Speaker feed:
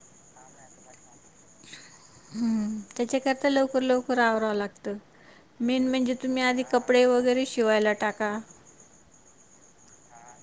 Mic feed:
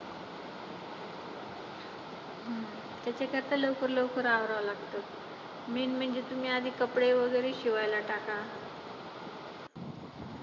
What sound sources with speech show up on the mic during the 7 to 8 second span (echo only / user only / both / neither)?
echo only